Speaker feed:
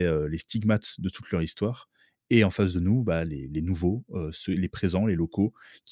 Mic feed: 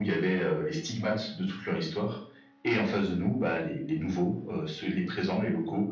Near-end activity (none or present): none